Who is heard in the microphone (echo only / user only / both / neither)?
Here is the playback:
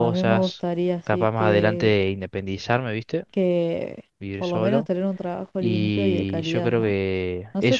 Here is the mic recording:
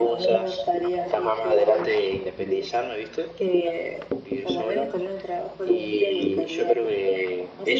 echo only